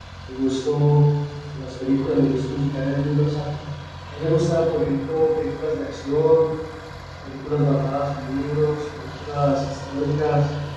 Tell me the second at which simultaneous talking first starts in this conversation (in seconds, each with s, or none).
none